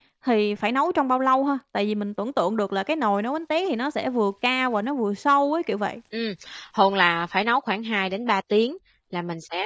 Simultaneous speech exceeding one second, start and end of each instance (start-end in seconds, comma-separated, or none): none